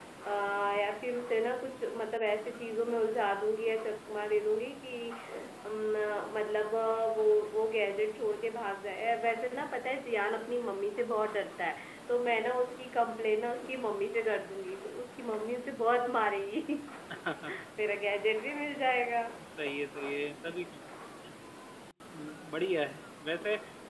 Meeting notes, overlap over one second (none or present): none